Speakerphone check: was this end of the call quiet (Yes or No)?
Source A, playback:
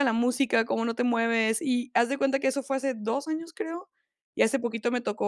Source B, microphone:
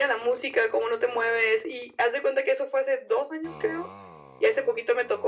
Yes